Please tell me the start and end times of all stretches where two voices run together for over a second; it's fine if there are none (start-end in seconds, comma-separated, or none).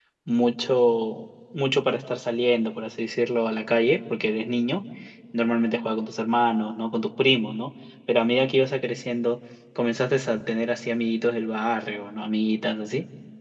none